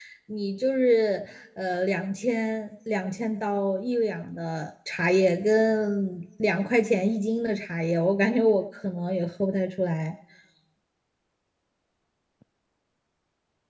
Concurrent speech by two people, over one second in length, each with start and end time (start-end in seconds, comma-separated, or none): none